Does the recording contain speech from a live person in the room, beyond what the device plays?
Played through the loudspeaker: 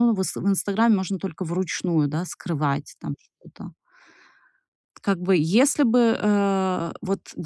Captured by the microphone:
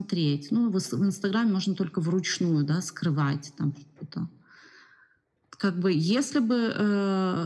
No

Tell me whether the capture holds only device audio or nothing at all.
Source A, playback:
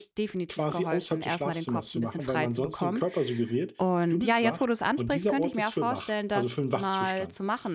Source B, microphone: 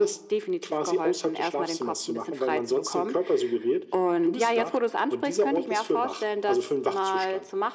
Yes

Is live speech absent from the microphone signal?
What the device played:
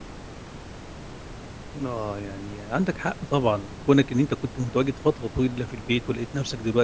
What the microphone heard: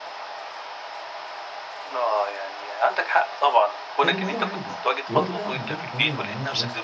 No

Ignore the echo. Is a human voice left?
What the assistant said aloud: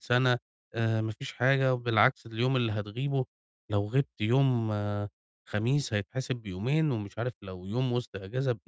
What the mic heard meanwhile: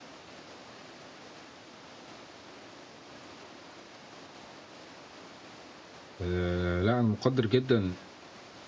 Yes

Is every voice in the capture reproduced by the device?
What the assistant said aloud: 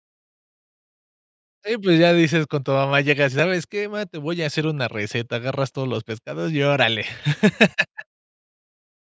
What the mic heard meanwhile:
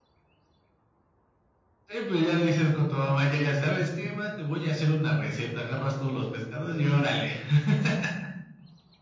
Yes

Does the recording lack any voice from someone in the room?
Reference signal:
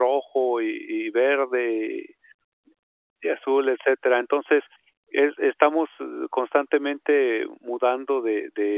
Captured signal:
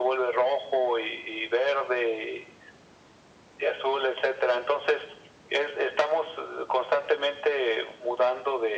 Yes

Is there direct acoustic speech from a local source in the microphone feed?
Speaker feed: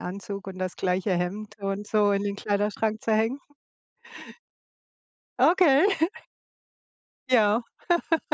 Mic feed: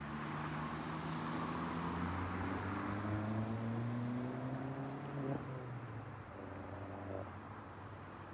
No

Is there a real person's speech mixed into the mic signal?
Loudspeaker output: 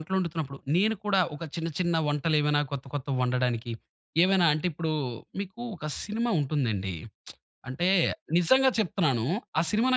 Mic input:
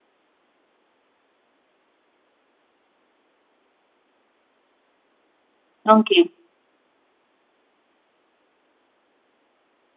Yes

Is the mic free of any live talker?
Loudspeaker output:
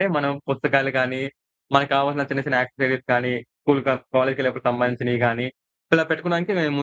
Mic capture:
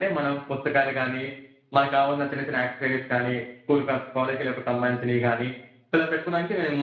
Yes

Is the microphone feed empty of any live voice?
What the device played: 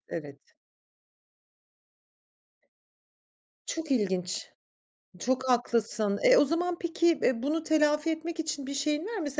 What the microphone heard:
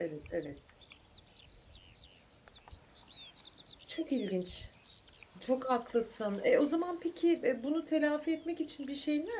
Yes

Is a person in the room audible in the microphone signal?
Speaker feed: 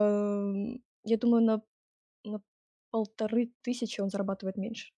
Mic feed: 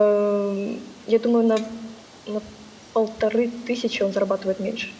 No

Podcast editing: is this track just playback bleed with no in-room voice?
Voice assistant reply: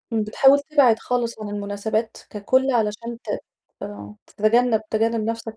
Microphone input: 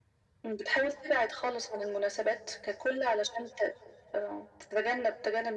Yes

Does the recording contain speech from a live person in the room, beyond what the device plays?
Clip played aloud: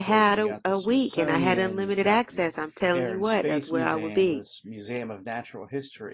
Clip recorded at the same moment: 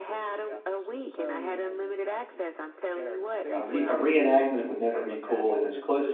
Yes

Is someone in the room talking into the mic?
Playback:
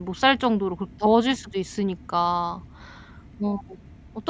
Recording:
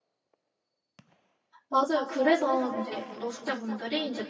Yes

